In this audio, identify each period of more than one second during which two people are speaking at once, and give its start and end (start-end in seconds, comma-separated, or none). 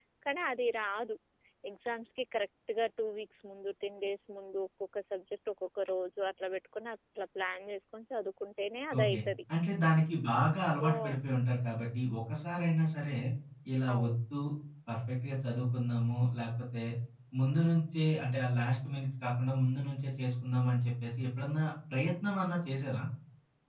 none